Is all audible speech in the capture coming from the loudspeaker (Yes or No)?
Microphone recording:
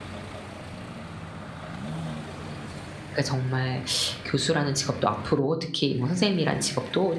No